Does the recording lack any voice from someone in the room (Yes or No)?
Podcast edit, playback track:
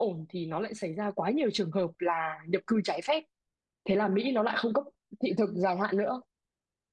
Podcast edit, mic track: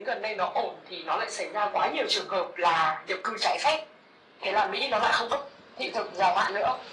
Yes